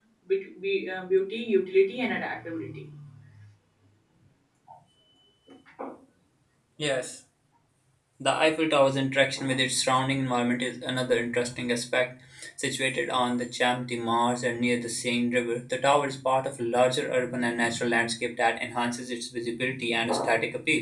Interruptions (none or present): none